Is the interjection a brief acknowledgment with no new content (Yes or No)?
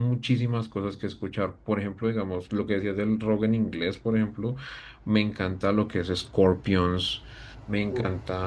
Yes